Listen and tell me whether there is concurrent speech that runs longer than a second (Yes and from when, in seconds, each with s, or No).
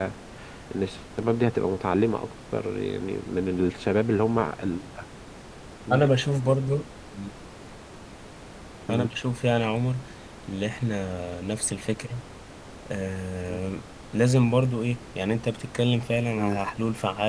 No